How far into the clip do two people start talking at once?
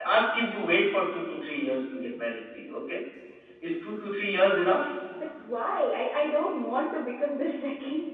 none

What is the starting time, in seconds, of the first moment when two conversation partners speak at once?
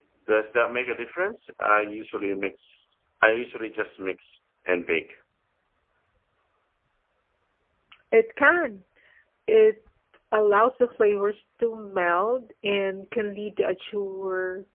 none

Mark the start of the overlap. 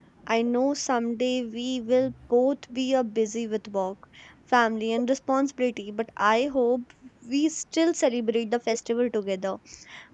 none

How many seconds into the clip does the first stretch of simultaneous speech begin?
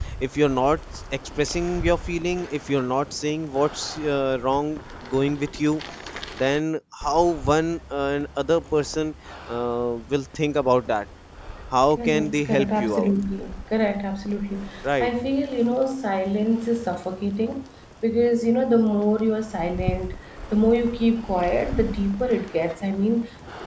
12 s

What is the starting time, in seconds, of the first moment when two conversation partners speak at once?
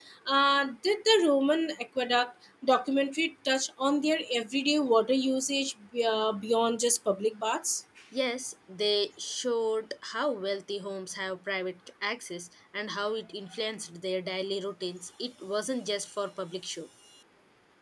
none

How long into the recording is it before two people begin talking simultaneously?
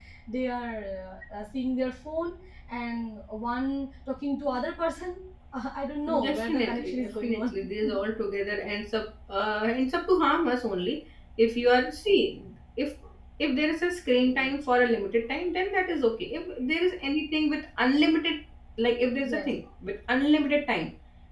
6 s

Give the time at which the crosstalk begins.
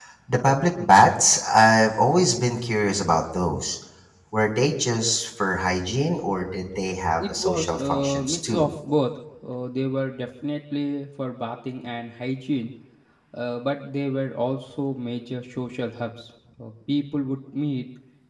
7 s

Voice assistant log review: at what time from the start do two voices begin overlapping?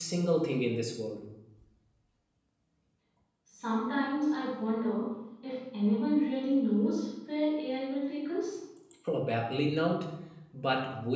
none

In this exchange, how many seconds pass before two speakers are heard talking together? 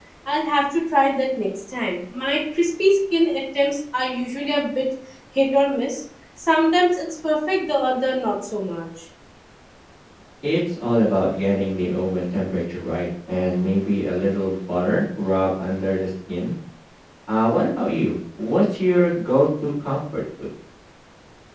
none

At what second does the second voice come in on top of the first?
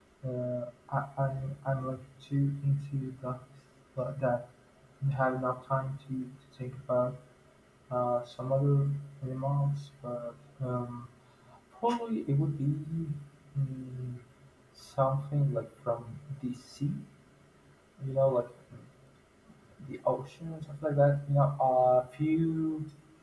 none

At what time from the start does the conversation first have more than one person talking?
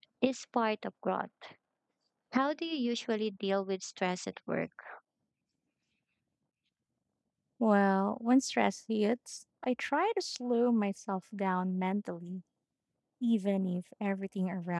none

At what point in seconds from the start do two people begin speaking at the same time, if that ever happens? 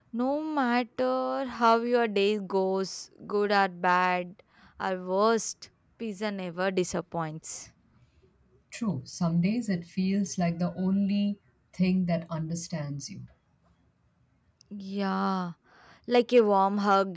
none

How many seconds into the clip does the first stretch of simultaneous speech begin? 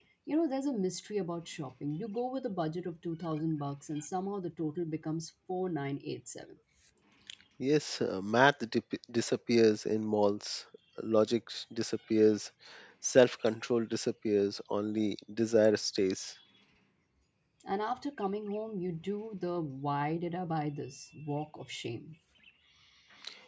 none

